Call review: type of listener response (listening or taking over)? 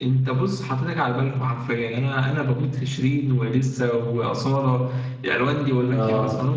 taking over